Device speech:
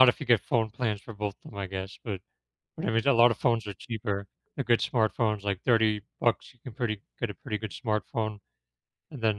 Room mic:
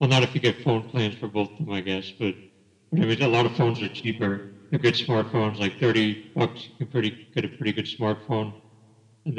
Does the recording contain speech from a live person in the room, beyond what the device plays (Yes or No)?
No